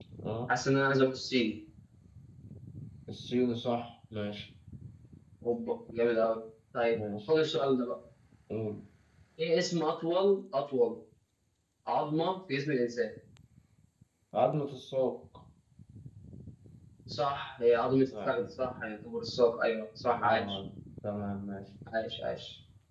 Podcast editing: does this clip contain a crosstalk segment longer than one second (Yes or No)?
No